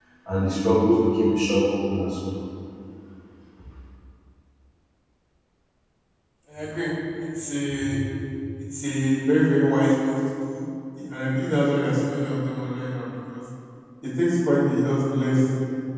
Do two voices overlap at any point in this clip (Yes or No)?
No